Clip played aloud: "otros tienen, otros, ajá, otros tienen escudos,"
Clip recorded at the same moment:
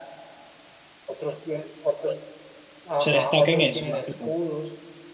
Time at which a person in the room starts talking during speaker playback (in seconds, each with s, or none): 3.0 s